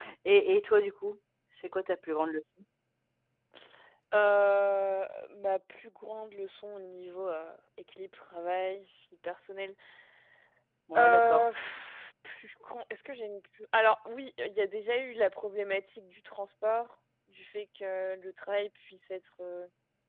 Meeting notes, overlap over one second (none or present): none